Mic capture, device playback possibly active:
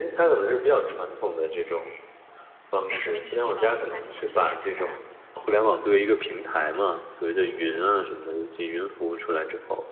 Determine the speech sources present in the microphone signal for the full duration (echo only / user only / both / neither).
both